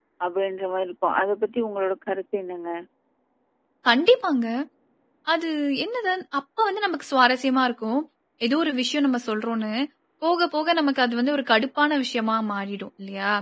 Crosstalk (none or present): none